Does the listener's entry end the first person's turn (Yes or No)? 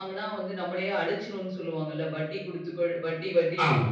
Yes